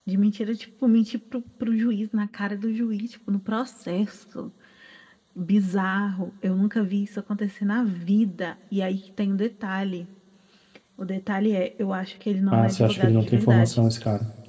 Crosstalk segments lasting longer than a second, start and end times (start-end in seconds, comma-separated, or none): 12.5-13.8